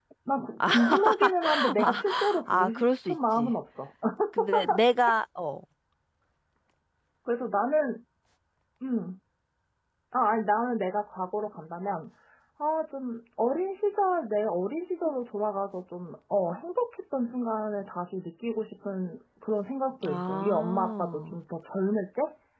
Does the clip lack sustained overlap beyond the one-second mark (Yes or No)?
No